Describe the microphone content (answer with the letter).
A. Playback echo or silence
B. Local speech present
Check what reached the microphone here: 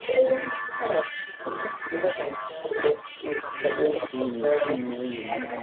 B